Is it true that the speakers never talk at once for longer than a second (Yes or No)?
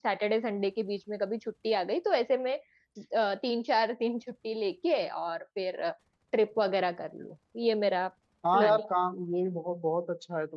Yes